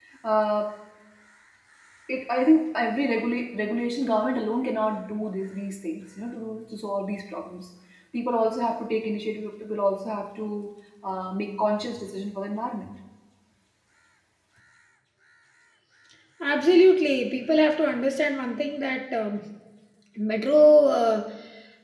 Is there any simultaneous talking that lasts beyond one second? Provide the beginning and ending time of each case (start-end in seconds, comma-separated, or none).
none